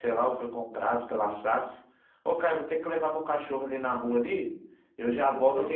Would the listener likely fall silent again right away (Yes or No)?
Yes